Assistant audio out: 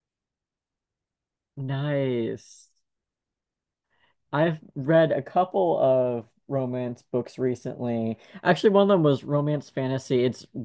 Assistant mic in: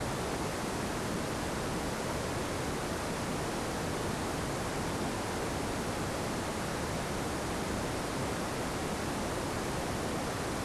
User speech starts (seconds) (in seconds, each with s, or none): none